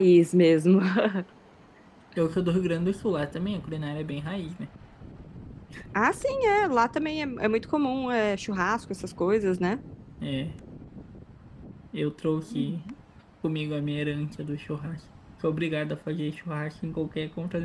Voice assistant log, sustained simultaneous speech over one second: none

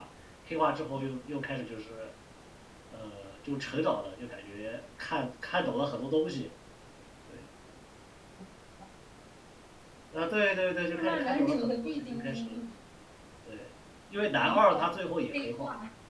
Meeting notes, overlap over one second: present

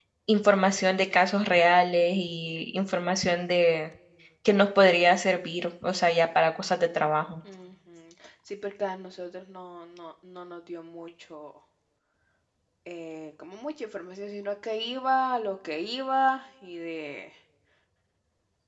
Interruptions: none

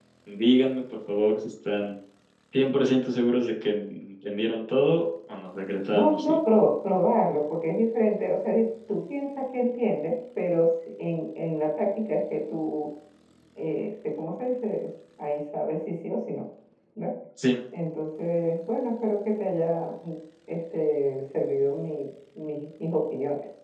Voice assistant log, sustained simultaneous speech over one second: none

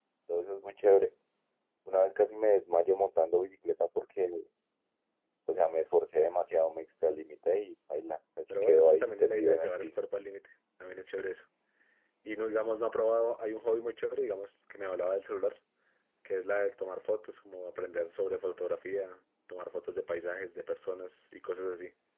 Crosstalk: present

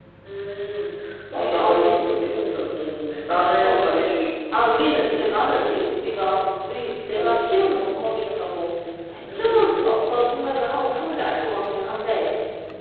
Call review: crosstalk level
present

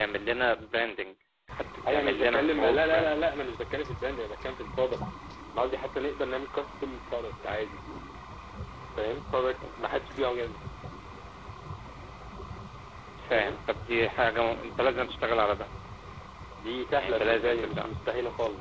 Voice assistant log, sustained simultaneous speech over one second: present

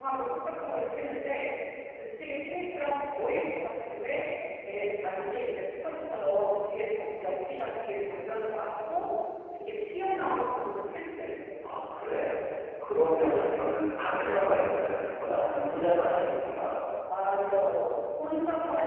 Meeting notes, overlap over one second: none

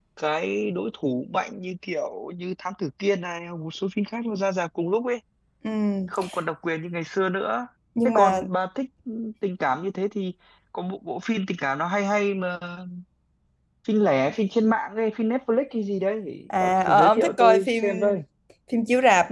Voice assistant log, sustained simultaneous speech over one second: present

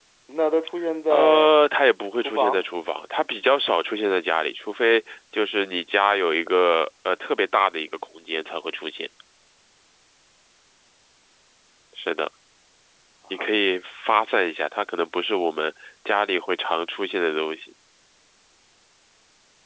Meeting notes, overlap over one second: none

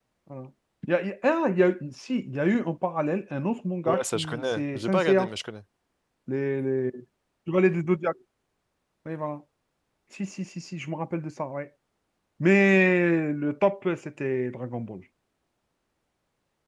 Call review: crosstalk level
present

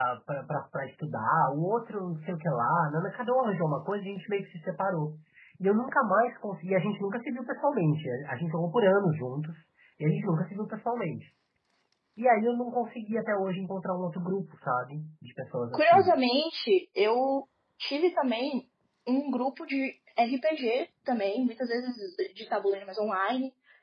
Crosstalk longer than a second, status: none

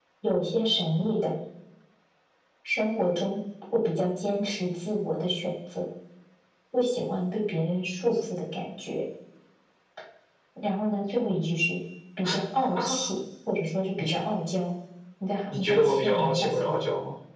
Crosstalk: present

